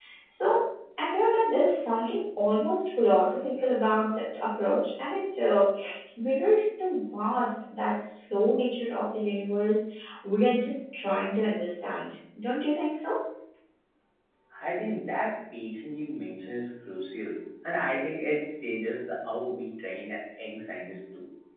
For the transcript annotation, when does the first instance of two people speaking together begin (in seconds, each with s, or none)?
none